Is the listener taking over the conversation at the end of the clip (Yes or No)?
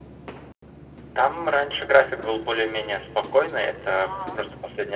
No